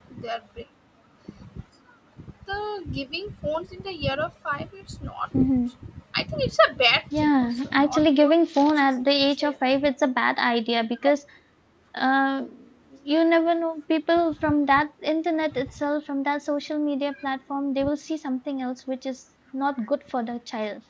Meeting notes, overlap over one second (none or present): present